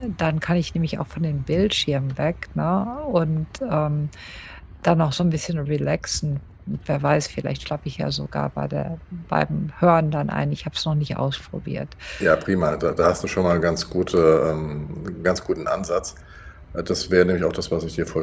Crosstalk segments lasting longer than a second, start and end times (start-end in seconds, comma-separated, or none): none